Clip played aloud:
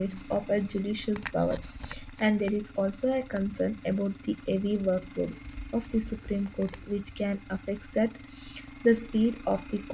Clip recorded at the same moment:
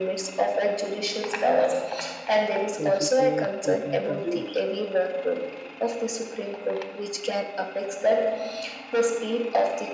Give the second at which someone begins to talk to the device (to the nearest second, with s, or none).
3 s